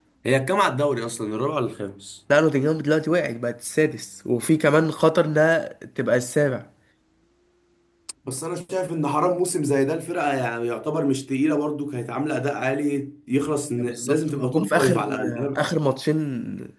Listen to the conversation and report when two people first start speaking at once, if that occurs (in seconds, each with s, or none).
13.8 s